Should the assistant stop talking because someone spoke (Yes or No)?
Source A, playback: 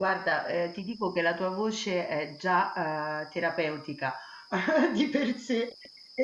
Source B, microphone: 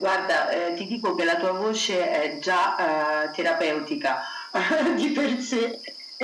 No